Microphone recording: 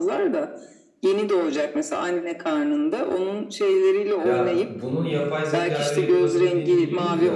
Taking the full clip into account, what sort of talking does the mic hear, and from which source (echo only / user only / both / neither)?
both